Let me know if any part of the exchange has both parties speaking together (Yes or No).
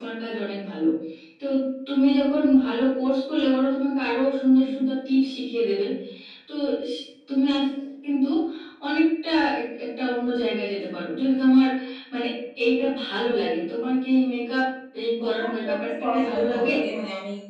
Yes